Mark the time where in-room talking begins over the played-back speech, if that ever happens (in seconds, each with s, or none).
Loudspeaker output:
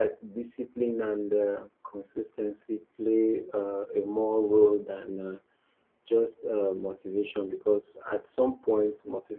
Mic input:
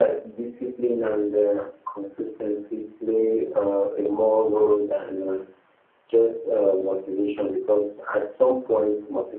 none